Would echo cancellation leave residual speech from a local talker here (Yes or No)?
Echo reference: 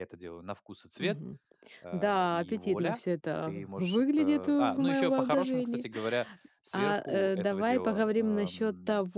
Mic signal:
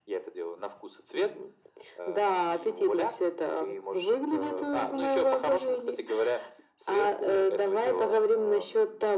No